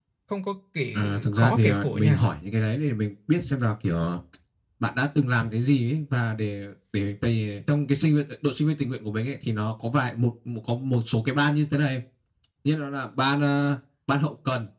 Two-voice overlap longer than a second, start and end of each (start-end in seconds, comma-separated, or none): 0.9-2.2